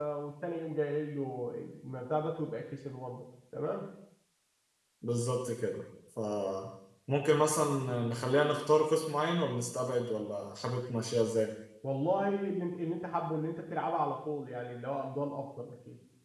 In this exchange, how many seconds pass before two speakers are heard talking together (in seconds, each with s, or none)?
none